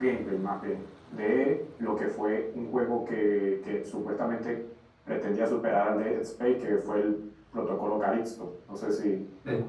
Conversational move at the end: taking over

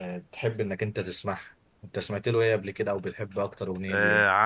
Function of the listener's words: taking over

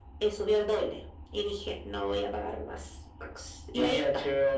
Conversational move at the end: taking over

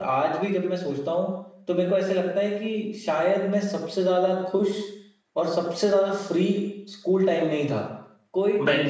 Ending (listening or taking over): listening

